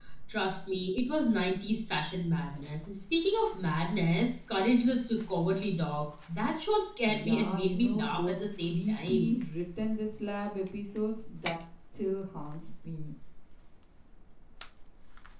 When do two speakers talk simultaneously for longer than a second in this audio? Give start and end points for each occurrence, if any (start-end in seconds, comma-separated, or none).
7.1-9.3